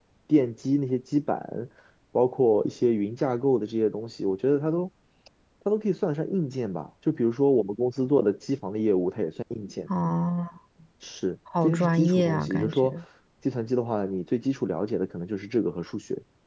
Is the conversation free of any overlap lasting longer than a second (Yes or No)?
No